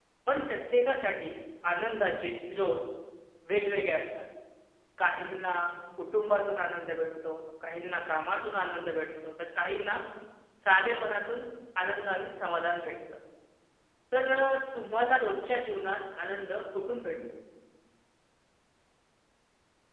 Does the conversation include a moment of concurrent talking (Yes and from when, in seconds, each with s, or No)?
No